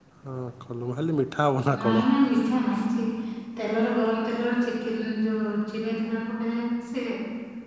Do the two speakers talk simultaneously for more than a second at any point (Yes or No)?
No